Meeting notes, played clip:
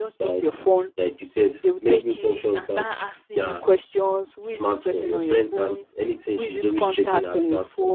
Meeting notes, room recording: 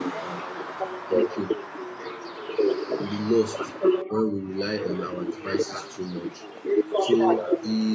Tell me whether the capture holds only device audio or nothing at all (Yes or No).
No